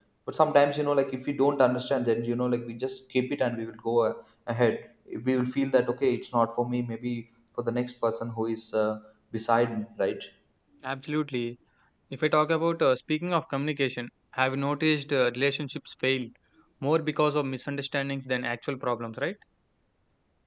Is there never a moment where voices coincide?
Yes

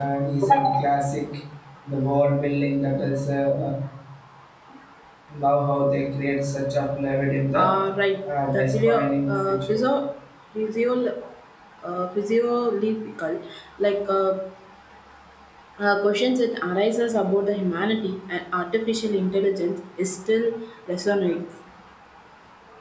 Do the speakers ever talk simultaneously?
Yes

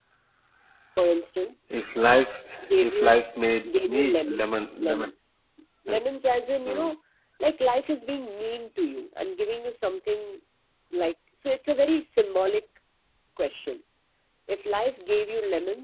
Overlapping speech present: Yes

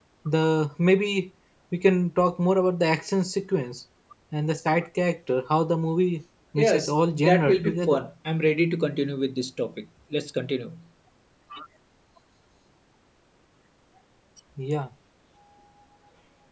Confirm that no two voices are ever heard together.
No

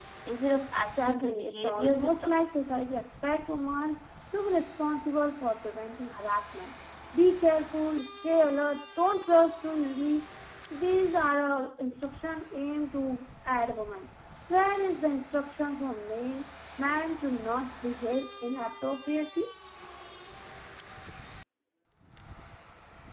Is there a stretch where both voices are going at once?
Yes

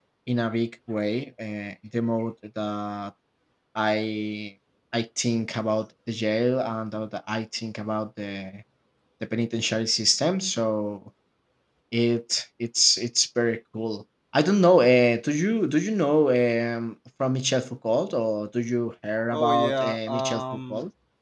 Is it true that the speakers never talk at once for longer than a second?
No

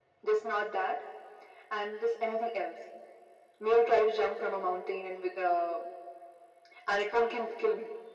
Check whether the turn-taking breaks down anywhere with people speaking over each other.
No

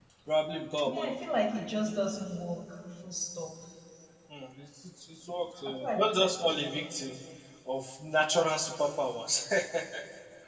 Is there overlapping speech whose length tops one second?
Yes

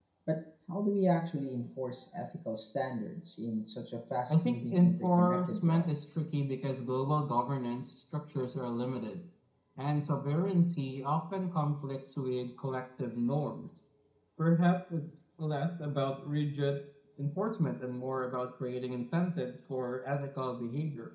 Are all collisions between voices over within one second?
No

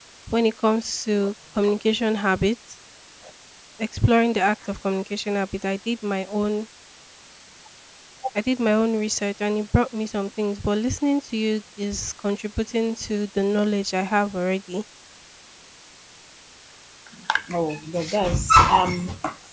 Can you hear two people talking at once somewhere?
No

